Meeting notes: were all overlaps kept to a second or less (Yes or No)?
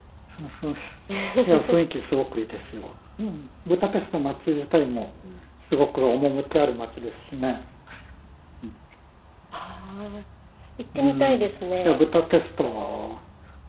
No